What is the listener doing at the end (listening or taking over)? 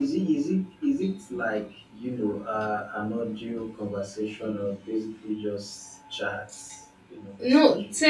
taking over